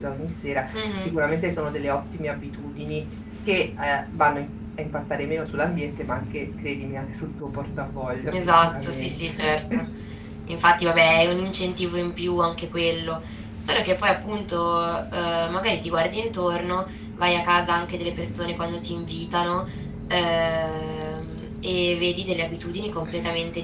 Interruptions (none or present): present